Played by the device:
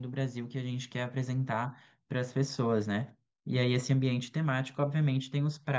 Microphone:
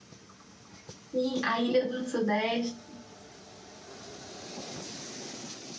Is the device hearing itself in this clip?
No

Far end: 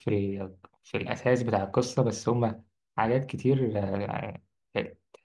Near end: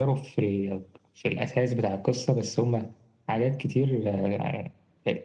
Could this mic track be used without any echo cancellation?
No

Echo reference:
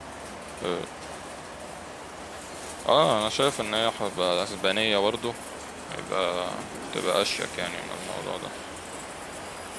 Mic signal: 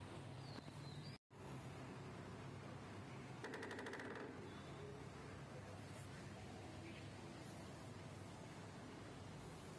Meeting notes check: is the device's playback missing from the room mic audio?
Yes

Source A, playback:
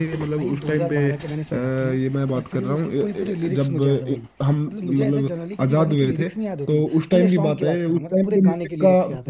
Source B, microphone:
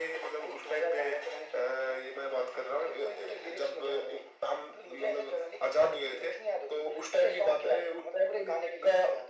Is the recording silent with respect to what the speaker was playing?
No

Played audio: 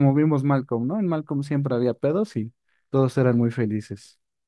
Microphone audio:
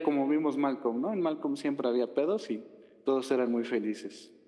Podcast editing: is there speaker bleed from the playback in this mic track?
Yes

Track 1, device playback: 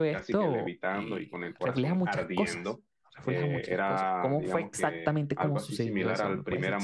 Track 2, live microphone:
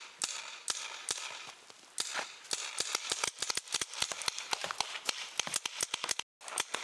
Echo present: No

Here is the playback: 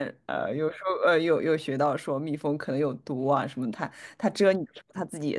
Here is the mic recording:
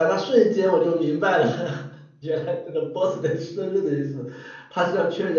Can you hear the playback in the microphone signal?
No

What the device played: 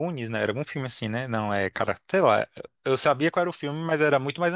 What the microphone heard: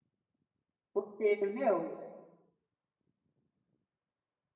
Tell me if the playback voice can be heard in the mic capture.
No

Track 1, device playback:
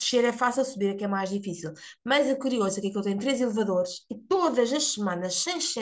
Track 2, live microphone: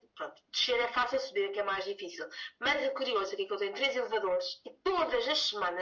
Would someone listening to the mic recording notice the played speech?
Yes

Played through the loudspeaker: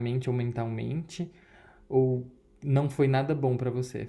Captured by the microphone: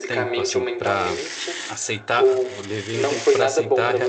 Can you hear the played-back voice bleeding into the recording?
Yes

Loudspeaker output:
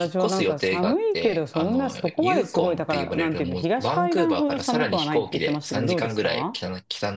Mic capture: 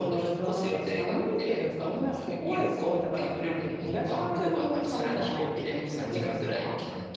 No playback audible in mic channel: No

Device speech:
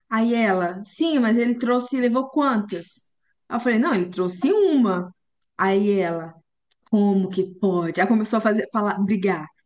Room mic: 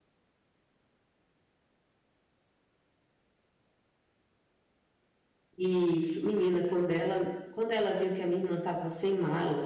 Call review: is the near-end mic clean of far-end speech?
Yes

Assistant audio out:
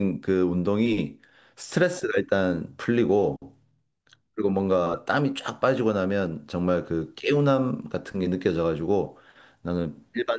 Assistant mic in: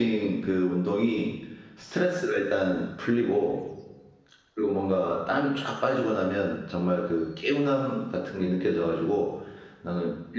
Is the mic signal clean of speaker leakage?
No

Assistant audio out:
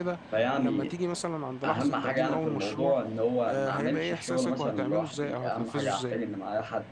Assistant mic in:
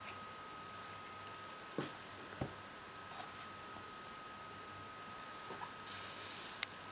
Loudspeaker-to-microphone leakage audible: No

